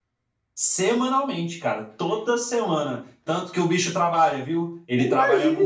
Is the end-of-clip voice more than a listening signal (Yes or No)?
Yes